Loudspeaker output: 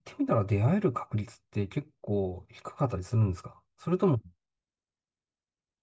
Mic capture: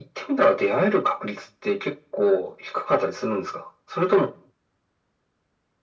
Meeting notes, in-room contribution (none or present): none